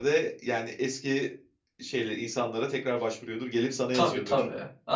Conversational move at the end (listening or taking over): taking over